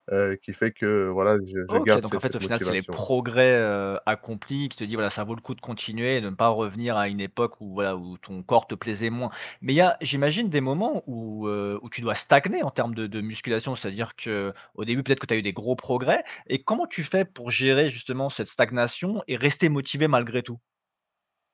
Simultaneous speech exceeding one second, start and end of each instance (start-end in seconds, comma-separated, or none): 1.7-3.0